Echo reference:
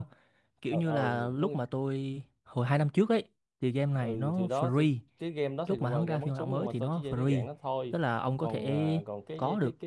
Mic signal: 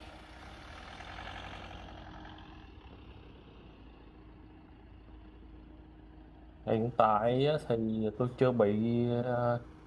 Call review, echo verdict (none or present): none